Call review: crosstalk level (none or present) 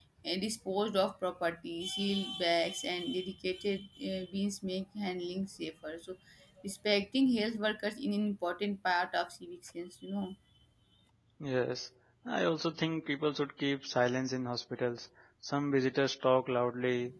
none